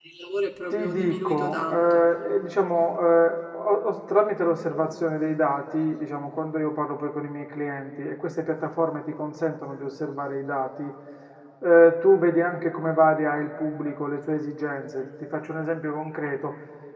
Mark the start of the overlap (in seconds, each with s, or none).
0.7 s